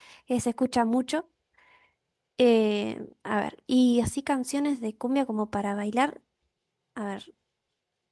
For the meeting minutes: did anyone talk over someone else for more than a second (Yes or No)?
No